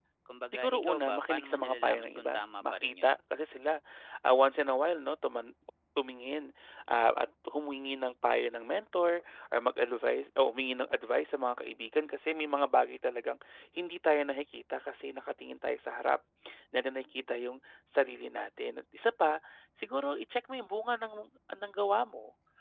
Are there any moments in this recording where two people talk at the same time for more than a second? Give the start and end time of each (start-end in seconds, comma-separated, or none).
0.5-3.1